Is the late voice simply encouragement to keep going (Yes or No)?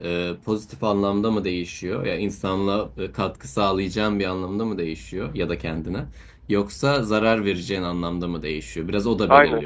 Yes